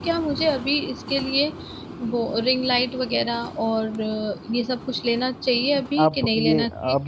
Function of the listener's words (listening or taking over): taking over